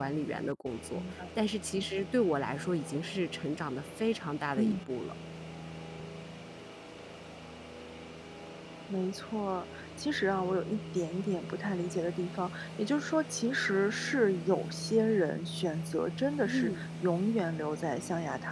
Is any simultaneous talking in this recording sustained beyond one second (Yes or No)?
No